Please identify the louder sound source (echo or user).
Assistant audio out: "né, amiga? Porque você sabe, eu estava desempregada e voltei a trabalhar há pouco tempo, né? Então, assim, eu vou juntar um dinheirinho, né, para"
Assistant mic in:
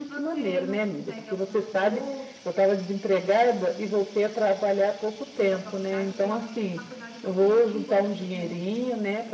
echo